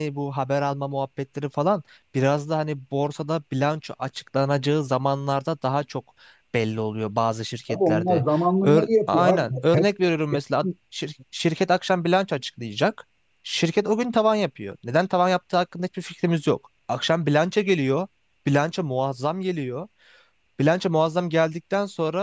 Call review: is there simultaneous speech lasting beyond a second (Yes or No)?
Yes